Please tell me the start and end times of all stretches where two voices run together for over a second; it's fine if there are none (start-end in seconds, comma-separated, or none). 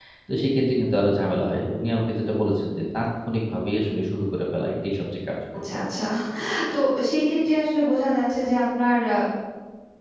none